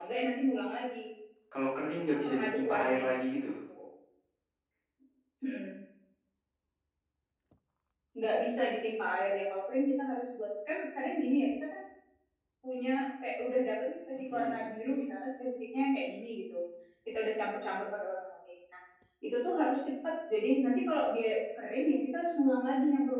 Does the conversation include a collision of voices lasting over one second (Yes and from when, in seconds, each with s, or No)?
Yes, from 2.1 s